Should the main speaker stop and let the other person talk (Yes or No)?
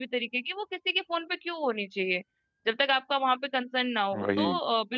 No